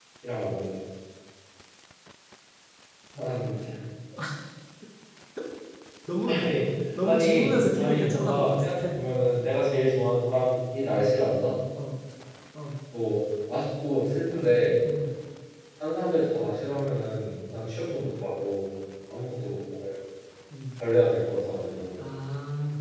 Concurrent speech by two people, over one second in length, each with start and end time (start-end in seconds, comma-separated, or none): 7.0-8.9